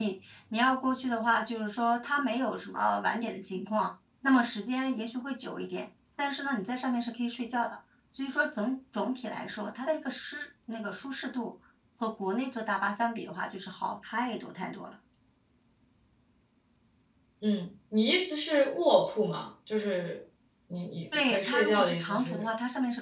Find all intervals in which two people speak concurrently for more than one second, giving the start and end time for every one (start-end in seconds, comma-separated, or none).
21.3-22.5